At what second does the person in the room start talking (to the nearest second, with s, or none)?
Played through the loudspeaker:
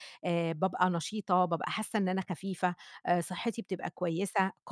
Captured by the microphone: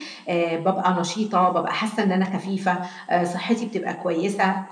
none